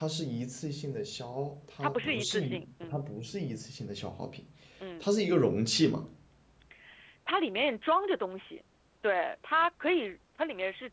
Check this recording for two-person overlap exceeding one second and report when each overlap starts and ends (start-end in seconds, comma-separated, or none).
1.8-3.0